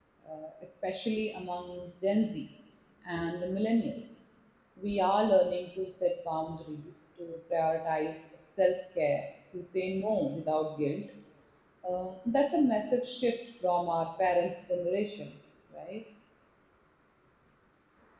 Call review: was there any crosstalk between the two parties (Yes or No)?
No